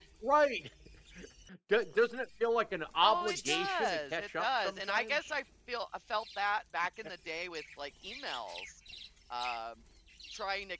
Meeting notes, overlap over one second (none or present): present